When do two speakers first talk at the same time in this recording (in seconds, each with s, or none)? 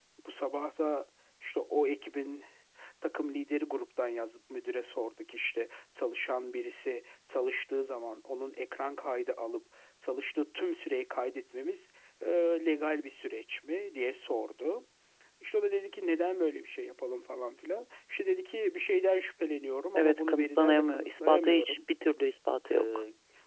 20.0 s